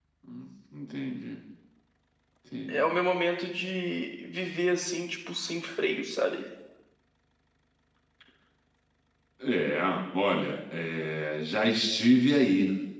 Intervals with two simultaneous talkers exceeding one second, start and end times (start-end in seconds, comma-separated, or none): none